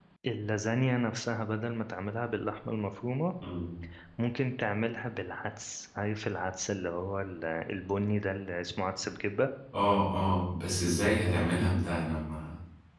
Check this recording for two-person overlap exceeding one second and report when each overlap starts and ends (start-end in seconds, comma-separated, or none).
none